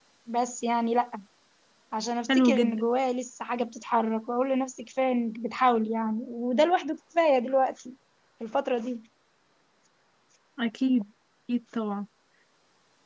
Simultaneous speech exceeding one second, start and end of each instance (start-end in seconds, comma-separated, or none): none